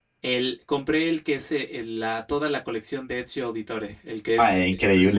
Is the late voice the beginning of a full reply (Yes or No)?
Yes